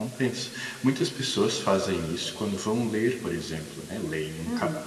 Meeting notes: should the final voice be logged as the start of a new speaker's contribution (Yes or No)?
No